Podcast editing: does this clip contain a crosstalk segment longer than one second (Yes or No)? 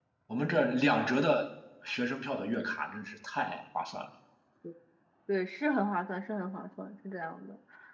No